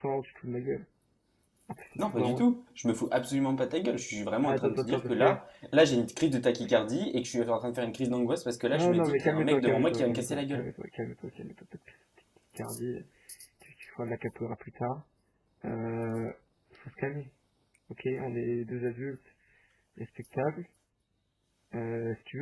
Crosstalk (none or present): present